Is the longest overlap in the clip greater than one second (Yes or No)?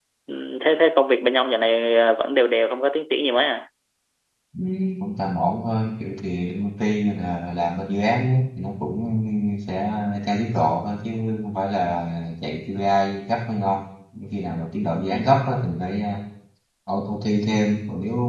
No